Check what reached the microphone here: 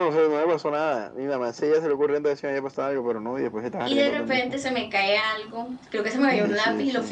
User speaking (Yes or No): Yes